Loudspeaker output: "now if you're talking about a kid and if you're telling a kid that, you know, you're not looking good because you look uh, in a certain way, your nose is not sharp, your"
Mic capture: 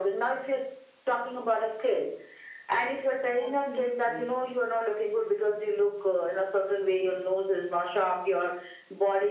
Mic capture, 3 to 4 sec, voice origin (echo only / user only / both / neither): both